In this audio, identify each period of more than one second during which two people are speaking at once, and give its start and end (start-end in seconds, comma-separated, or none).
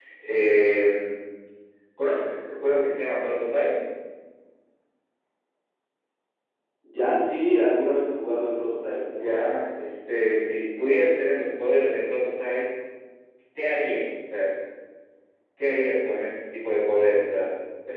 none